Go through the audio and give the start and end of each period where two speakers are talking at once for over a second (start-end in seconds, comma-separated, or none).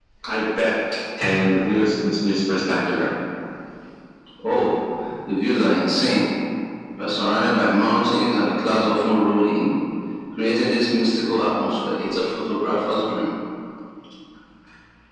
none